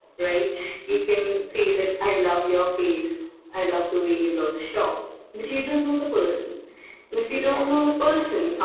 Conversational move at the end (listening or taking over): listening